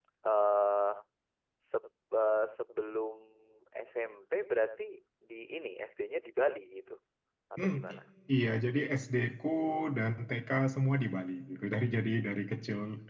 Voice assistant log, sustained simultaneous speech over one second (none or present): none